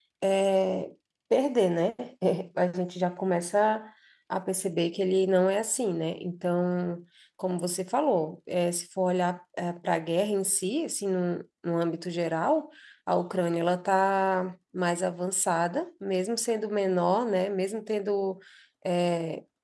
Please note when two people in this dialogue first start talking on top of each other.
none

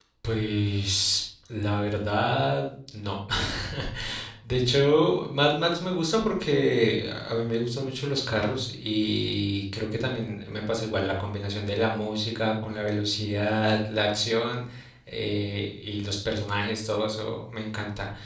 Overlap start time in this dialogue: none

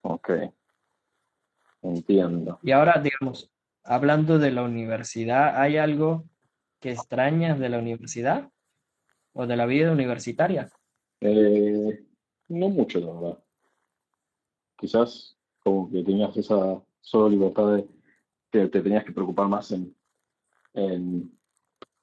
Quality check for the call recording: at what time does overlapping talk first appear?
none

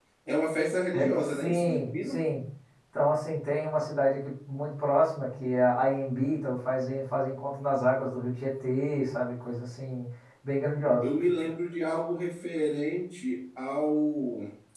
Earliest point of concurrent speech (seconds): 0.9 s

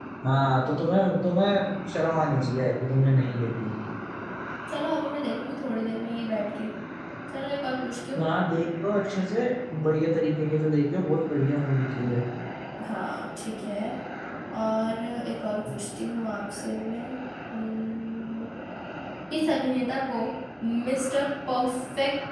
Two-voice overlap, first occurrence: none

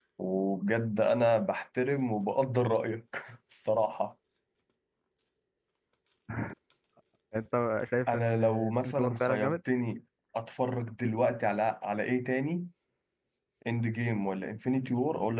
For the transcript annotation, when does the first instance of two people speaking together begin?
8.1 s

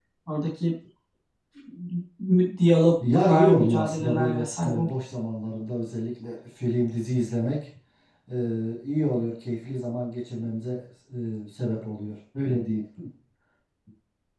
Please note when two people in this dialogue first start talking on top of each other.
3.0 s

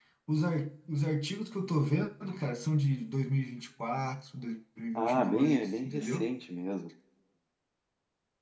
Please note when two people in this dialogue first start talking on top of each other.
5.0 s

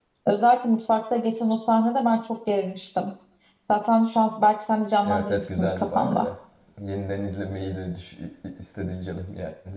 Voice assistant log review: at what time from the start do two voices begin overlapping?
5.0 s

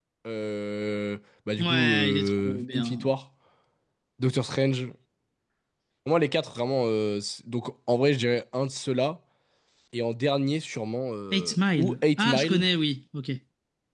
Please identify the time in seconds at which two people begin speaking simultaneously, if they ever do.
1.6 s

